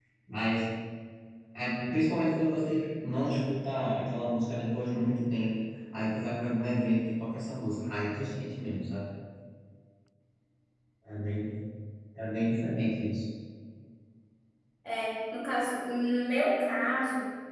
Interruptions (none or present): none